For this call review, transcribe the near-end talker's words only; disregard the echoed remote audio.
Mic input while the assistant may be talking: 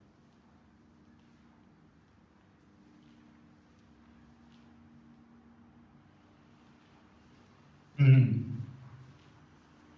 हुँ, हुँ।

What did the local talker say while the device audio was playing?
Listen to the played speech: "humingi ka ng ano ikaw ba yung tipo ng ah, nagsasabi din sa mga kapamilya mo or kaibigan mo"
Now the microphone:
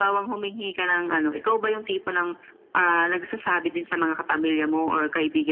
none

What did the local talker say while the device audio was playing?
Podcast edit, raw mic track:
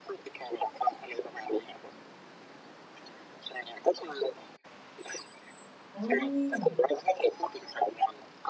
โอ้โฮ

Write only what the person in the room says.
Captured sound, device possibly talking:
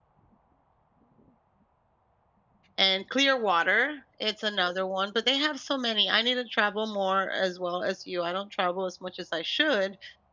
and Clearwater, it's another one, but they have so many. I need to travel more, as well as you, I don't travel as much as I should,

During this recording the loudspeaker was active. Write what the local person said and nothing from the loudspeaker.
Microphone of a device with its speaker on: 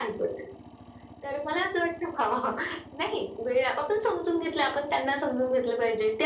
none

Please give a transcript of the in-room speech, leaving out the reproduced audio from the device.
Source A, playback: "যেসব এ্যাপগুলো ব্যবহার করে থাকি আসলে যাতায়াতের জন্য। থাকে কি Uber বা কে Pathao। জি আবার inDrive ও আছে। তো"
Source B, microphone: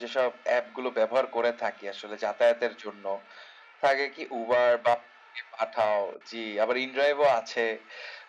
none

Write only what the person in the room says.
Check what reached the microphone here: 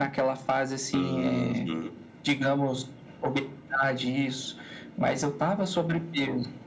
Uhum.

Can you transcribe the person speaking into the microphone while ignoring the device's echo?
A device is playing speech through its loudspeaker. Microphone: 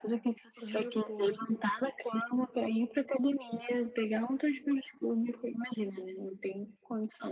dormiu pouco,

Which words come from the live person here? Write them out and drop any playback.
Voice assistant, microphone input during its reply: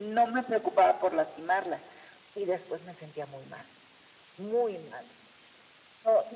none

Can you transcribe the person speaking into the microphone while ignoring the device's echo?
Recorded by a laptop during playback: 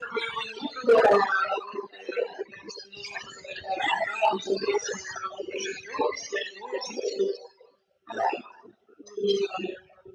none

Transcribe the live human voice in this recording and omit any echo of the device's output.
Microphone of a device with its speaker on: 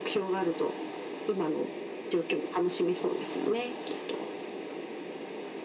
none

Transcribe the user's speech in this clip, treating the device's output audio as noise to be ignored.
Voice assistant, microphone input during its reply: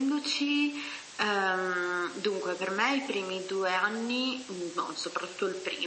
none

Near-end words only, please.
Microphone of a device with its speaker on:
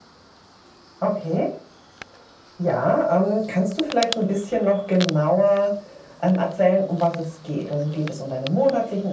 none

